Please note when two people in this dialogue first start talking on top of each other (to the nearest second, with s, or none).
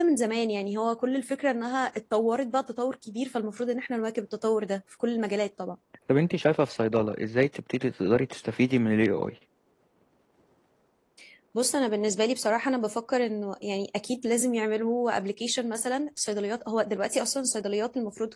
none